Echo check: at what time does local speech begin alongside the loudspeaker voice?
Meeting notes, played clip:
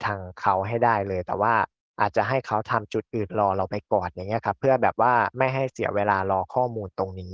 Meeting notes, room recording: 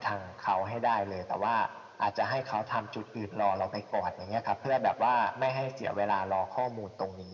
none

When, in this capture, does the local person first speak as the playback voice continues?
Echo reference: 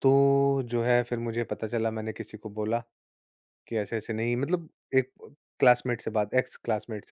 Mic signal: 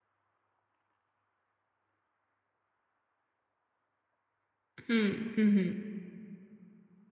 4.9 s

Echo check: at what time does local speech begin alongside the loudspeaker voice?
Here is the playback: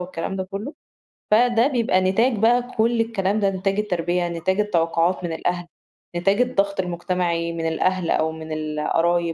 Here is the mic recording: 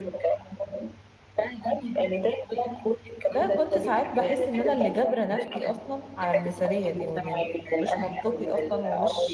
3.3 s

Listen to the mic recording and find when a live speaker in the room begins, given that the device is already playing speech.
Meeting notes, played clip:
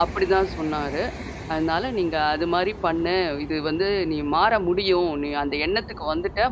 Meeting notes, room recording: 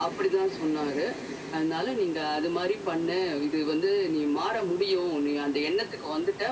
none

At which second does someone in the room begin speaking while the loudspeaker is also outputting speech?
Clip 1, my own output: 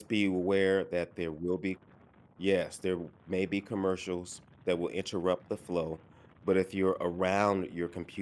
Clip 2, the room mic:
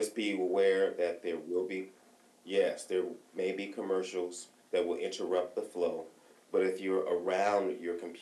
none

